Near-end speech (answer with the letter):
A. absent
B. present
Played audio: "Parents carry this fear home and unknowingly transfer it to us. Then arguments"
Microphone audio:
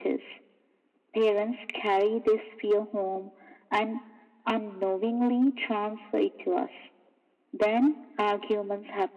A